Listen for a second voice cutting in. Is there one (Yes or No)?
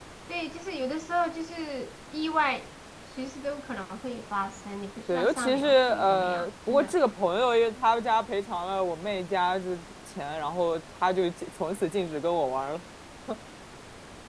Yes